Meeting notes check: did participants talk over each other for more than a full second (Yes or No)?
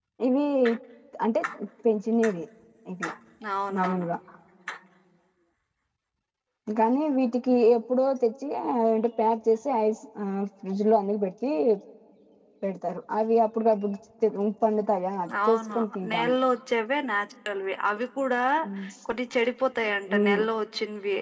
No